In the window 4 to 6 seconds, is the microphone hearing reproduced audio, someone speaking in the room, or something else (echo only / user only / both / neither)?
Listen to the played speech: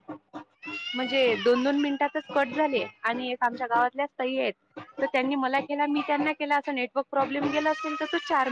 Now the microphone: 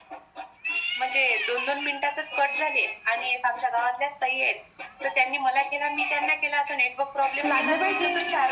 echo only